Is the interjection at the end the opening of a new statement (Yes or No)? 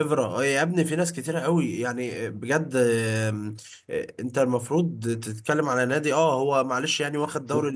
No